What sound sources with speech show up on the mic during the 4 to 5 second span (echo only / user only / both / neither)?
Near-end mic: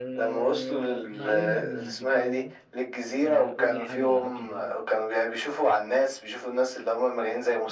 both